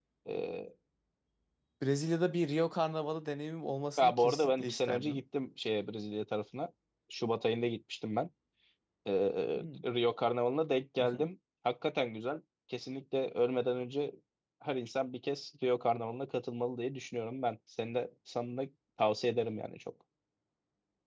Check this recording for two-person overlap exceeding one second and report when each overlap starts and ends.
4.0-5.2

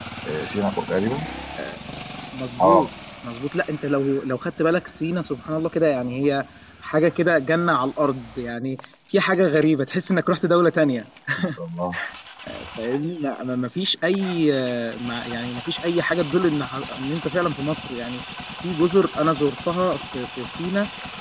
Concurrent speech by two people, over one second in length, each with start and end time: none

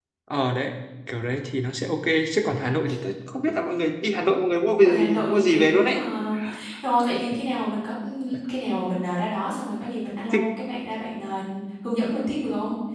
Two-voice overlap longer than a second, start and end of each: 4.8-6.0

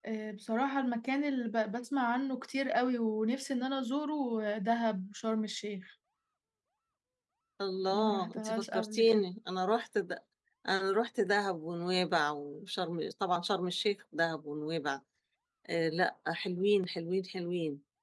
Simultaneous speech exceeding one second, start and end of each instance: 7.9-9.2

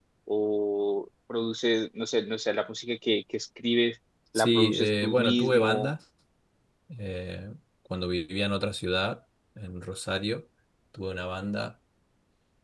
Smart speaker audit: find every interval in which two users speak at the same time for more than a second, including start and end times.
4.3-5.9

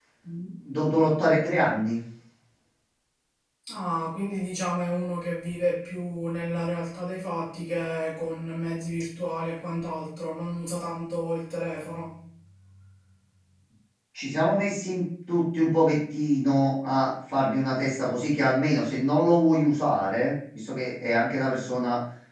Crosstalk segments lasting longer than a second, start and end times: none

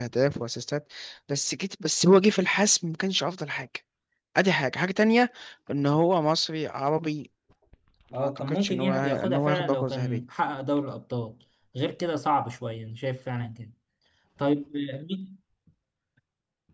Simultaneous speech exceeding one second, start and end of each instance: 8.1-10.2

